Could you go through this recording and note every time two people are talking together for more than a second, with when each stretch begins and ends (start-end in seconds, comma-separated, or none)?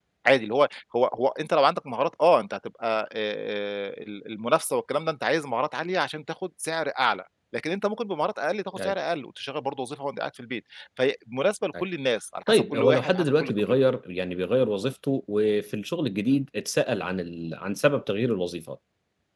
12.5-13.8